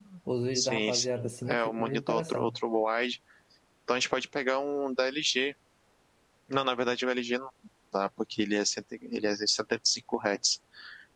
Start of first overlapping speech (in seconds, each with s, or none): 0.6 s